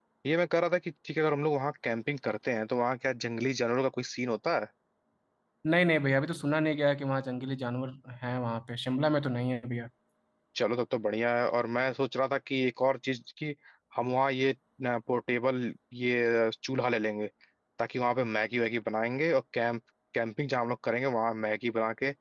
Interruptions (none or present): none